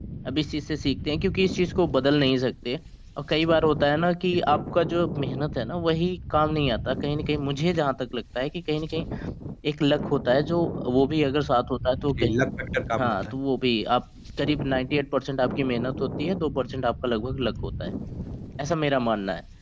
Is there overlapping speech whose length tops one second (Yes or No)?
No